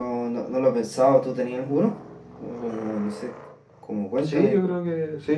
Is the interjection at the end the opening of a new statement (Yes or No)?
Yes